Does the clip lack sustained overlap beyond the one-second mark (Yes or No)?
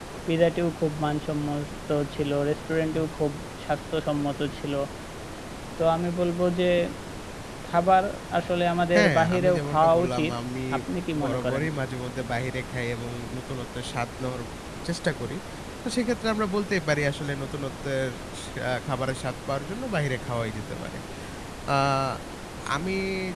No